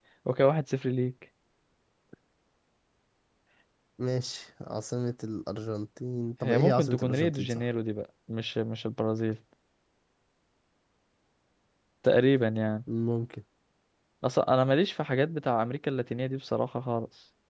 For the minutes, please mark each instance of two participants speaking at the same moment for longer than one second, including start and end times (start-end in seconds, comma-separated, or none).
6.4-7.6